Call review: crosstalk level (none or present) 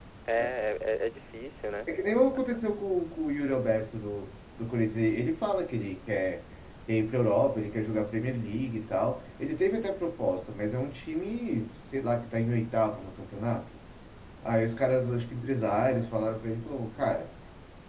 none